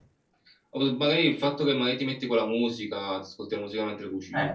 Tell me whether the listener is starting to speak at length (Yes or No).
Yes